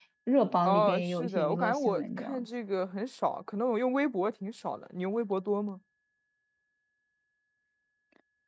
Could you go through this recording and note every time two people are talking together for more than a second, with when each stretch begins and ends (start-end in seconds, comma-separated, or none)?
0.7-2.5